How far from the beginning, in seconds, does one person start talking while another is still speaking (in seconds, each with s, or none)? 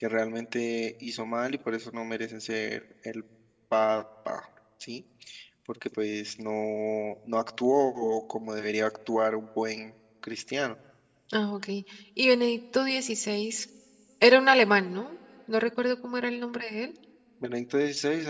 none